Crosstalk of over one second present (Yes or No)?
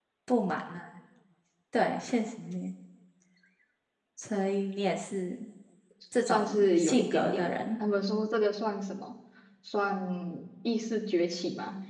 Yes